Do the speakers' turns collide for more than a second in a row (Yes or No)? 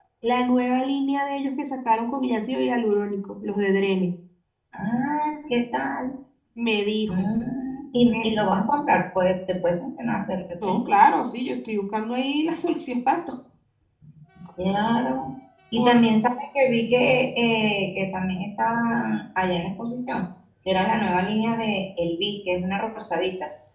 No